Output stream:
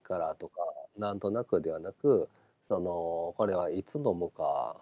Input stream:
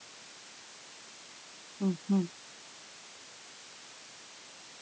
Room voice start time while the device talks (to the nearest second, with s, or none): 2 s